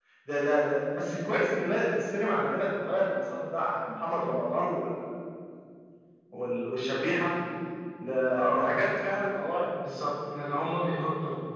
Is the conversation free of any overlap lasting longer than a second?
Yes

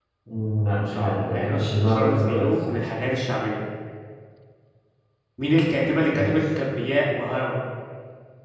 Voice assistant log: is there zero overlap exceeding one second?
No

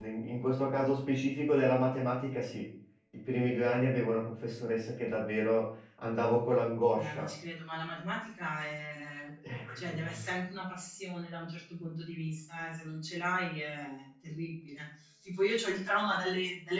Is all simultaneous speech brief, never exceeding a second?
Yes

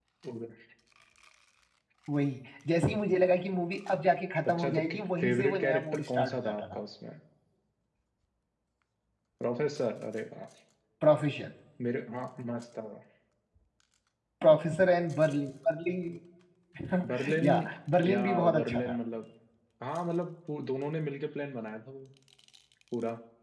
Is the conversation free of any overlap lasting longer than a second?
No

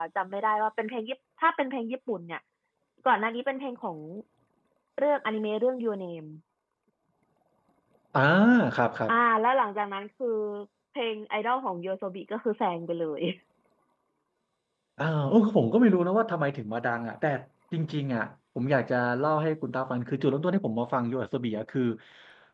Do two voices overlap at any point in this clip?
No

